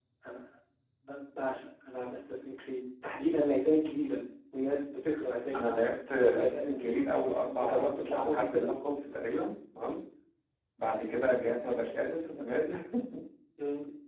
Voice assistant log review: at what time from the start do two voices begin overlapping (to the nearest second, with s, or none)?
6 s